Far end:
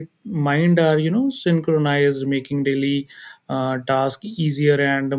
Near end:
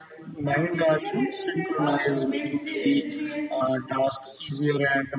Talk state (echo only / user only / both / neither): both